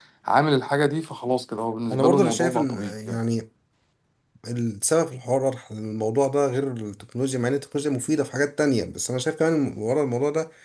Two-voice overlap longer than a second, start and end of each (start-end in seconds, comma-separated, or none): 1.9-3.2